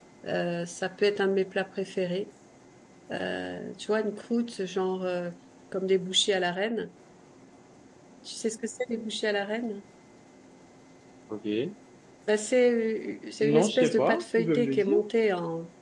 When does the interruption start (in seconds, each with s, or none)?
13.4 s